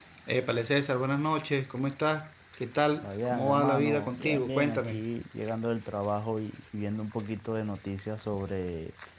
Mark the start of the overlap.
3.0 s

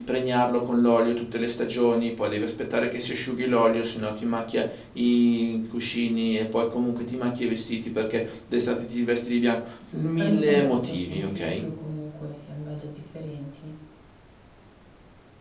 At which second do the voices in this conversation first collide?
9.9 s

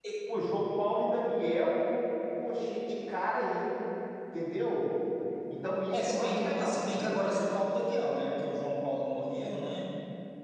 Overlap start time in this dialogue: 5.9 s

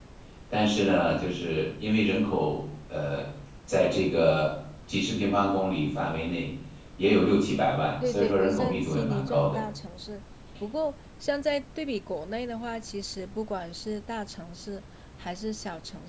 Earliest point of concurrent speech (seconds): 8.0 s

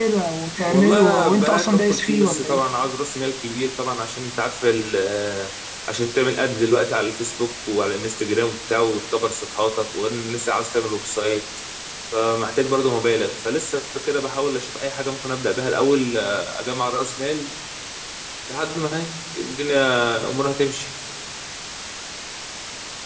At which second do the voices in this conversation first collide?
0.7 s

